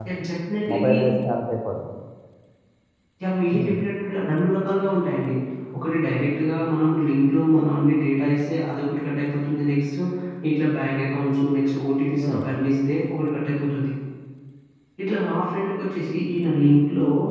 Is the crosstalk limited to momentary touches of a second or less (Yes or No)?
Yes